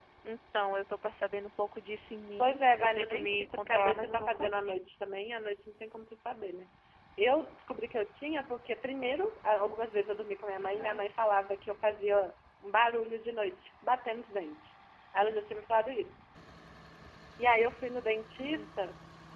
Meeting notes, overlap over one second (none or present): present